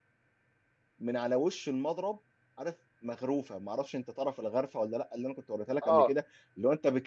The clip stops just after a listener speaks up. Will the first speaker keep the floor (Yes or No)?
Yes